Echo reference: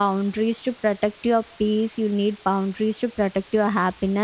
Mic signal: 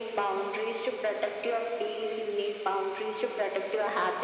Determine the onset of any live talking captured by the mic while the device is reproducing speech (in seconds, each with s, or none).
none